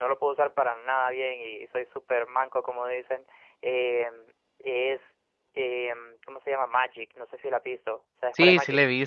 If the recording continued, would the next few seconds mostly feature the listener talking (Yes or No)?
Yes